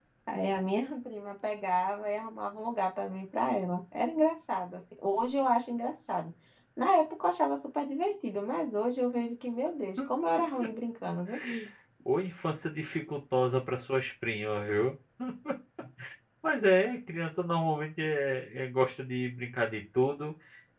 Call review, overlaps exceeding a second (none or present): none